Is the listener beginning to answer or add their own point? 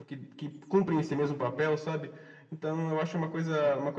No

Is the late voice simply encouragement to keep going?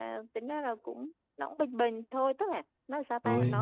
Yes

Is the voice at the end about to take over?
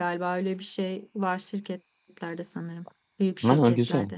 Yes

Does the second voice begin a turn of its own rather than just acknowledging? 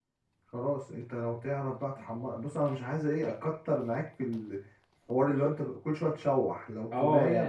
Yes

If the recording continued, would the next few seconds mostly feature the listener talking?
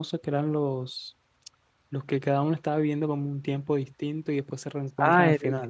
Yes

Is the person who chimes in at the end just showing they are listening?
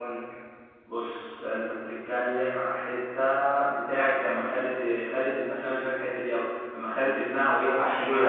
No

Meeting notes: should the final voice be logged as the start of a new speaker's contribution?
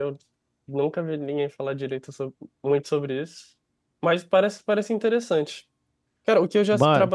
No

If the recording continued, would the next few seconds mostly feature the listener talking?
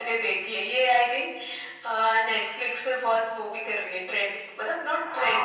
Yes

